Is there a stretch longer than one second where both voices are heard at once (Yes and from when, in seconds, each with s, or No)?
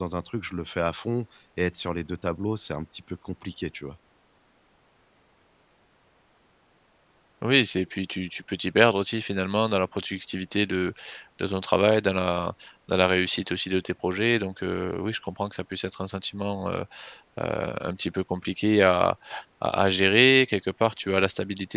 No